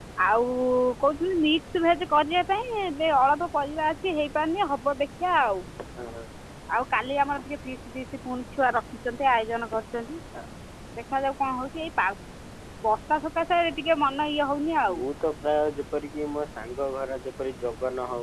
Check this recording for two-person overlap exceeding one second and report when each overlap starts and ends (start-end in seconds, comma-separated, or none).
none